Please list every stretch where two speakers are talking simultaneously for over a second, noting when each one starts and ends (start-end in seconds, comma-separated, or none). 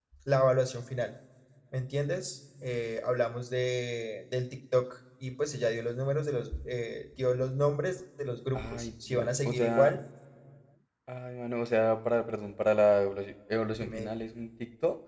8.5-9.9